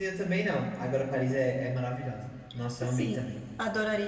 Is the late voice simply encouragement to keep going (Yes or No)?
No